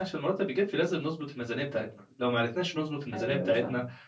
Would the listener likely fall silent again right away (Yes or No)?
Yes